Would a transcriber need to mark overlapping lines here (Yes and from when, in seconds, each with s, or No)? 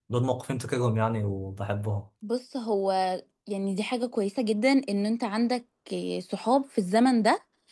No